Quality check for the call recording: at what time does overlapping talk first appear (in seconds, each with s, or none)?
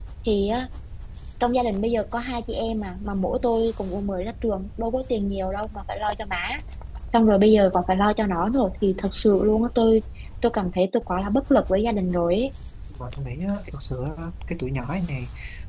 none